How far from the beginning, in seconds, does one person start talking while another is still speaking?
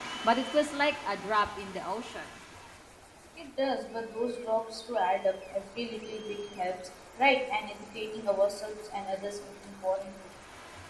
none

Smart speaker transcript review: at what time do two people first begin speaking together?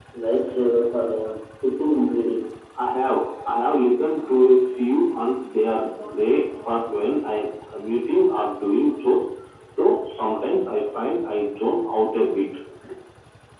none

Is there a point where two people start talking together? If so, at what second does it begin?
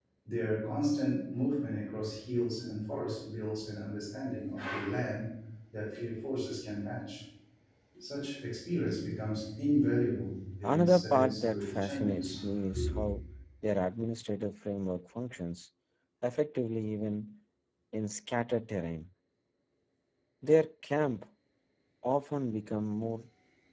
10.6 s

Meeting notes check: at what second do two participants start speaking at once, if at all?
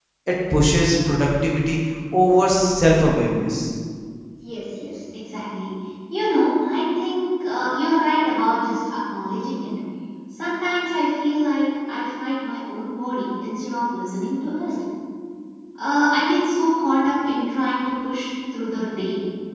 none

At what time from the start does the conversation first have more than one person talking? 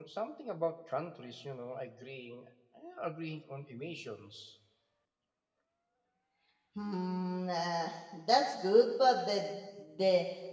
none

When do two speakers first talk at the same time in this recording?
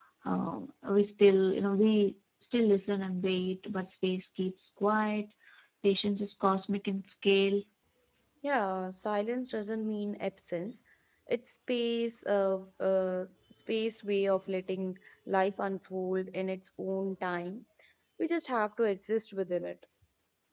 none

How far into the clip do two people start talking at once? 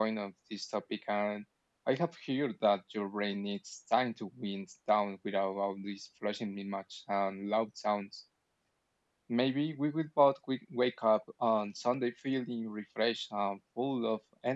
none

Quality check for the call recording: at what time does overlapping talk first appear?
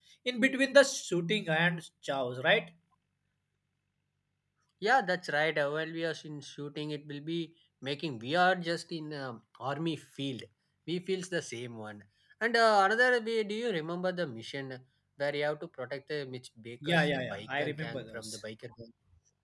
16.8 s

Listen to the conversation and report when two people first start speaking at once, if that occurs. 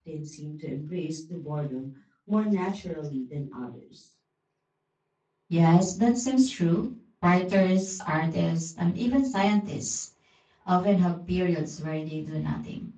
none

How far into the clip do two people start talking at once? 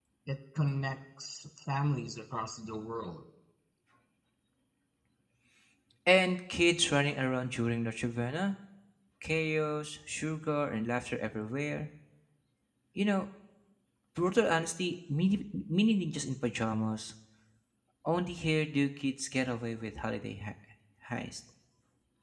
none

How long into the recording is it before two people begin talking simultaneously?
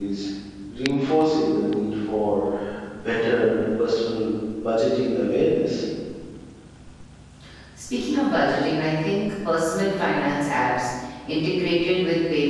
none

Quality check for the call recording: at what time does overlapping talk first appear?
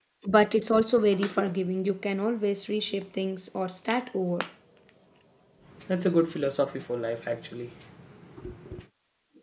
none

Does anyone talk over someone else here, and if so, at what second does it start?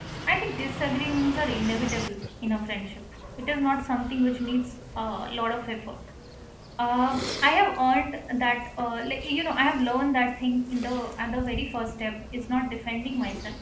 none

